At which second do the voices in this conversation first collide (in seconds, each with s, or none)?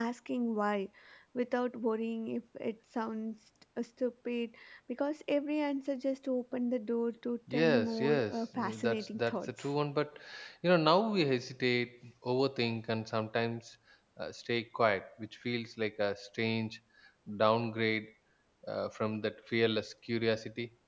7.5 s